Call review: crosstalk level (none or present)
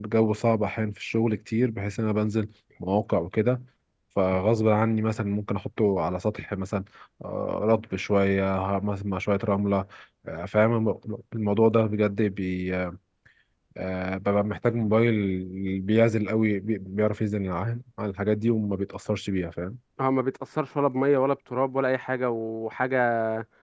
none